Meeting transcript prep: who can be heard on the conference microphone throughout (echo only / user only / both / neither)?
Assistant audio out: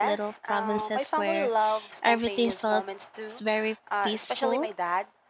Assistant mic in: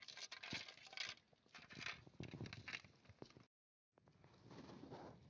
neither